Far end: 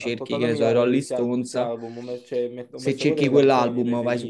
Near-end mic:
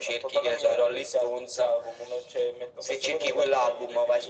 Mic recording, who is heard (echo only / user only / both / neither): echo only